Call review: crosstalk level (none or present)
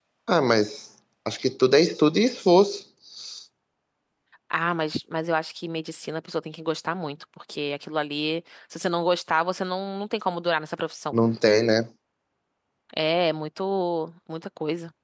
none